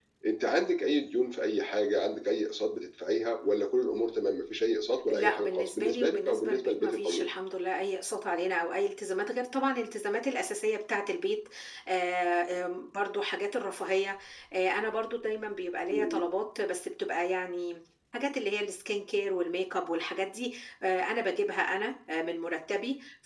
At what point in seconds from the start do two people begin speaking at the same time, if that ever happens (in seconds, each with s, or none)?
5.1 s